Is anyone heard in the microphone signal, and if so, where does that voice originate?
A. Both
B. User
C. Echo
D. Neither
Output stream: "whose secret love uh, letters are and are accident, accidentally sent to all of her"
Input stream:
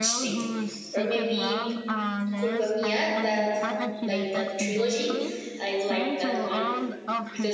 A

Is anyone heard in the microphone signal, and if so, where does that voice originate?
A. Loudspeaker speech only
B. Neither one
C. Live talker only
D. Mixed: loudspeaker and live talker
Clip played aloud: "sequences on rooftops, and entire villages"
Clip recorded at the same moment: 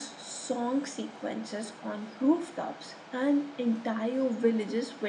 A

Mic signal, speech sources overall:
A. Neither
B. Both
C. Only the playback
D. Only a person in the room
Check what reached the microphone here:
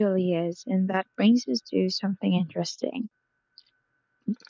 D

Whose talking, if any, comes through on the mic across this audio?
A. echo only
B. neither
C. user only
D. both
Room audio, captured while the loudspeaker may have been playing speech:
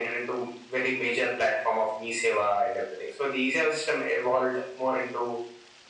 A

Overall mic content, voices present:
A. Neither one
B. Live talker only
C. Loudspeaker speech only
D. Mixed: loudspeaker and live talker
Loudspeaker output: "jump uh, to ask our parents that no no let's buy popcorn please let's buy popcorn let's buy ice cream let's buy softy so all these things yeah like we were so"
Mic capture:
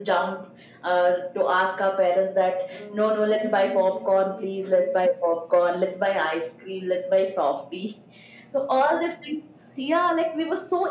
D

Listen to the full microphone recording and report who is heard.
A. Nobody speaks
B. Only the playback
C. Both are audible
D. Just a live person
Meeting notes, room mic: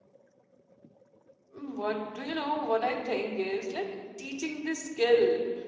D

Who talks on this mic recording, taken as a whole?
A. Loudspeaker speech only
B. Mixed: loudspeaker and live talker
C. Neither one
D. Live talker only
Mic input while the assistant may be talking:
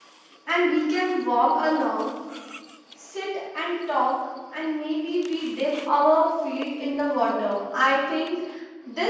D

